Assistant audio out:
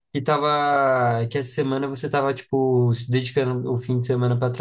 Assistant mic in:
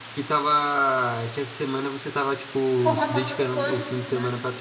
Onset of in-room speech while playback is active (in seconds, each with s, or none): 2.8 s